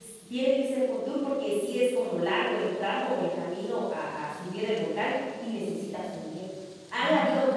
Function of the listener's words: listening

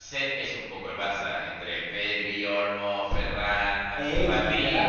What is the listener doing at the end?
taking over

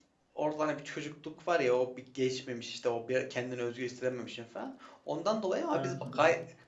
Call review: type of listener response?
listening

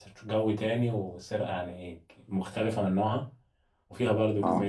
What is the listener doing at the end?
listening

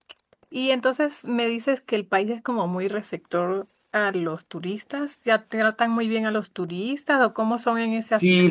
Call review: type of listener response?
taking over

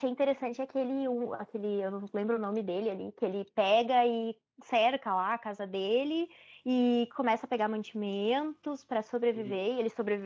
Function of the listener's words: listening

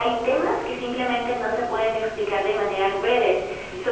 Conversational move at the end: listening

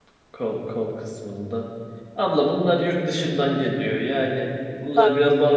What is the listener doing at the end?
listening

